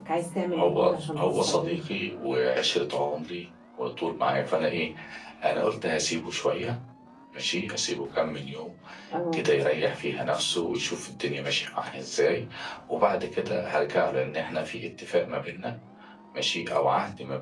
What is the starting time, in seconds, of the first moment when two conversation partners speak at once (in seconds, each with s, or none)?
0.5 s